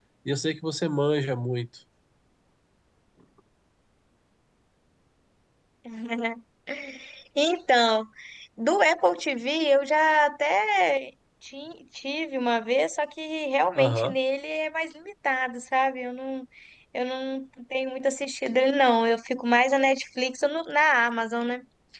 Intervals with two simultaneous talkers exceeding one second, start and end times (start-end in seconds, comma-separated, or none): none